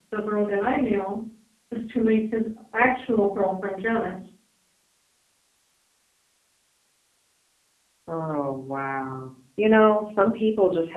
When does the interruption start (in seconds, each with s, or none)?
none